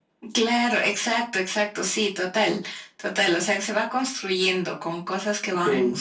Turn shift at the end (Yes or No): No